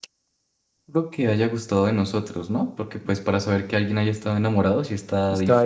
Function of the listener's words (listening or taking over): taking over